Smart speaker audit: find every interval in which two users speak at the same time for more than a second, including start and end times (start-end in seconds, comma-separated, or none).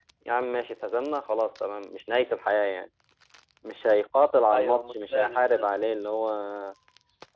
4.5-5.9